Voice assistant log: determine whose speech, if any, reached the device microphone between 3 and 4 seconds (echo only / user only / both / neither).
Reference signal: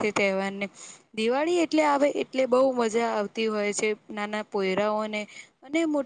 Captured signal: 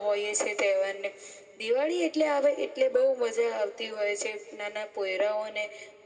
echo only